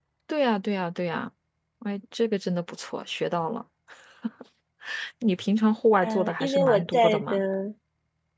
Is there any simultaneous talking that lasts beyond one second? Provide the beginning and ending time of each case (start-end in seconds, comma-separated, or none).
6.0-7.4